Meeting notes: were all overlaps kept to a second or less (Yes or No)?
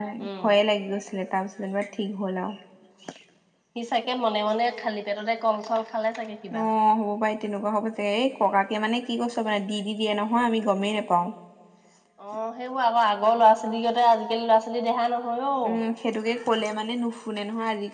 Yes